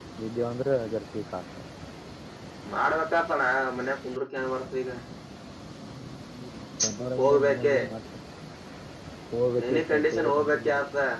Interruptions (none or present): present